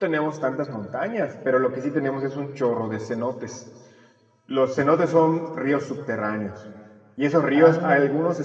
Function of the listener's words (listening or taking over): listening